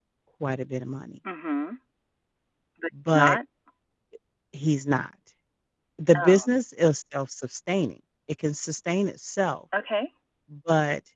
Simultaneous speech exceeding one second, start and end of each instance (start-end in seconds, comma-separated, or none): none